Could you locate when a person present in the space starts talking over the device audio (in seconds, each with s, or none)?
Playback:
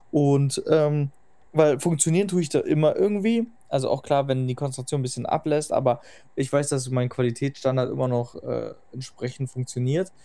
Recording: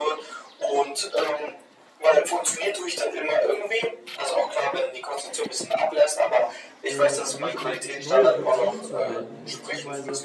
6.9 s